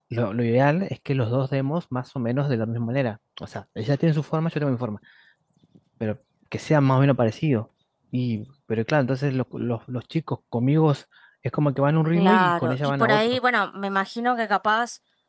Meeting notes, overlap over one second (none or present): present